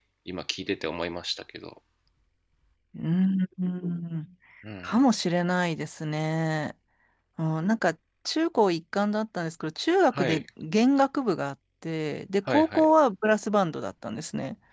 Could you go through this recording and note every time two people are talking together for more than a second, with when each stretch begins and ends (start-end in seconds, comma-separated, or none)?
none